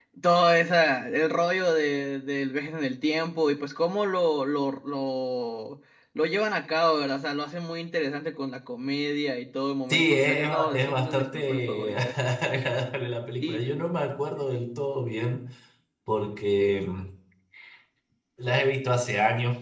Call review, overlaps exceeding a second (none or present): present